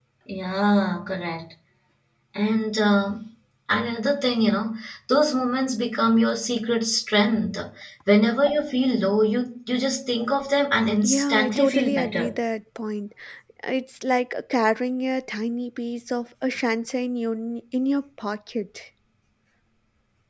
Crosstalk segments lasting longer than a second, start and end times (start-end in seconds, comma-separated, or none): 11.0-12.3